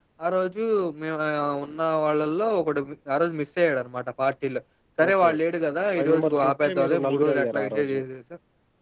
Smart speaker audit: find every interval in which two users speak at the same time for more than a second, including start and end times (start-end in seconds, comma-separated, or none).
6.0-8.0